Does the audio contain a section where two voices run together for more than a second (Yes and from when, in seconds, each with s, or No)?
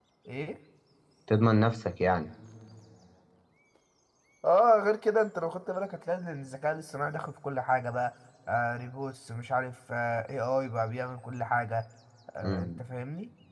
No